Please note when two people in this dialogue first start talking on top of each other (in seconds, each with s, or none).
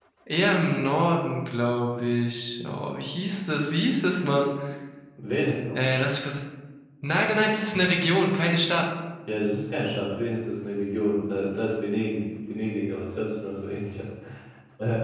none